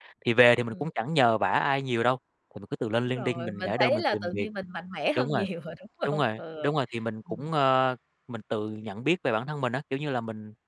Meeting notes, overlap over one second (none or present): present